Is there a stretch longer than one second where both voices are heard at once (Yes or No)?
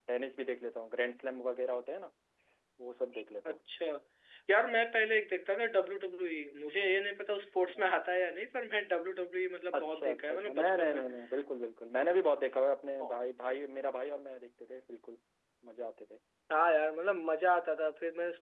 Yes